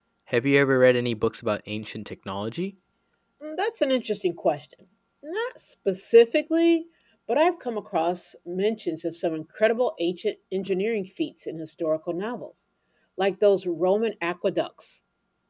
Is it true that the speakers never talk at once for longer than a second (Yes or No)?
Yes